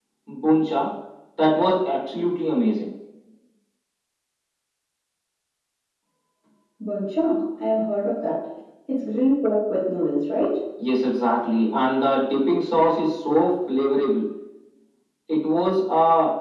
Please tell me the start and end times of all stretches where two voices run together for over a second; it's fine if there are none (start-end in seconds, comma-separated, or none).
none